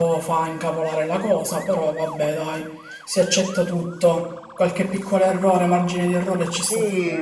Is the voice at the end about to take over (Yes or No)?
Yes